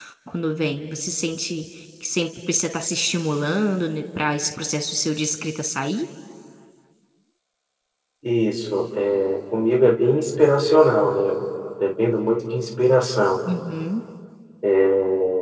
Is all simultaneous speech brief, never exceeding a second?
Yes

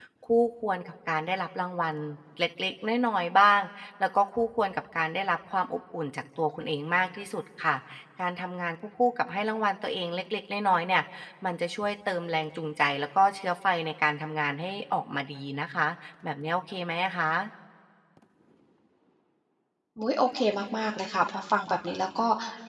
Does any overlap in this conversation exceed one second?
No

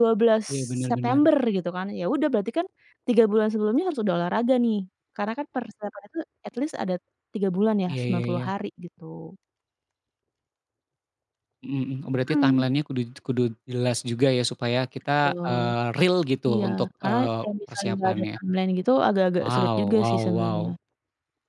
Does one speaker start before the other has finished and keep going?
Yes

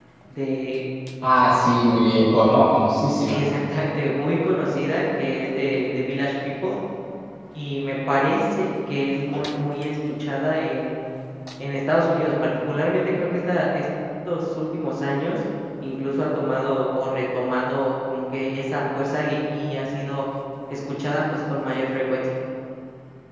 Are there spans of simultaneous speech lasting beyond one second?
No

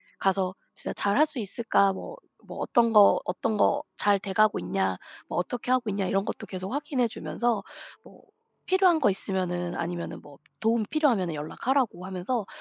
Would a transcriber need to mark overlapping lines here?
No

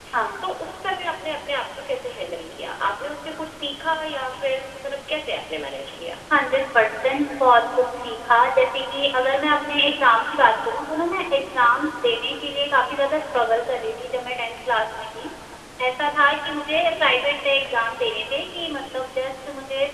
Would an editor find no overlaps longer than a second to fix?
Yes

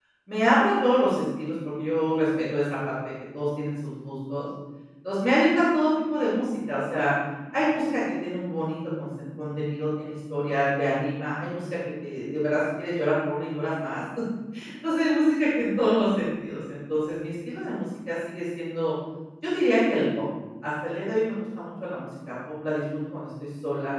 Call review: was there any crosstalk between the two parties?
No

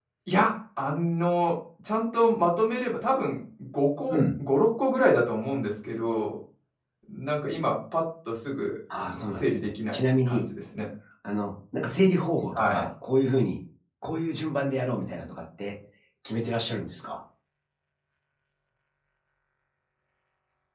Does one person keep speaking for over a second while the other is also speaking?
Yes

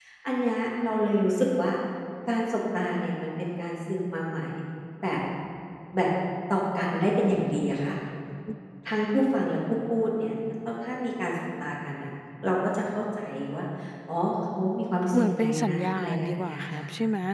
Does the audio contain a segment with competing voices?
Yes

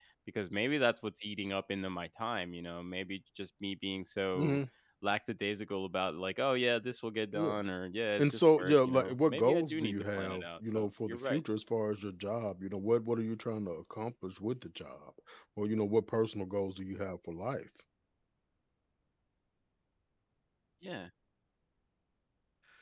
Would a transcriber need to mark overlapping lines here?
Yes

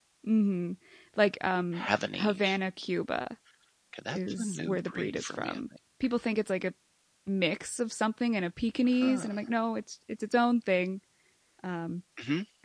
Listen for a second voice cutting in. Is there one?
Yes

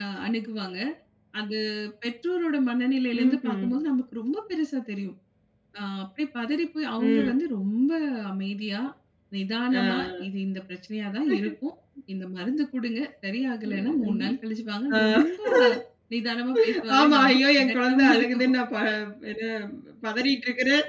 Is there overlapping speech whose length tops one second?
Yes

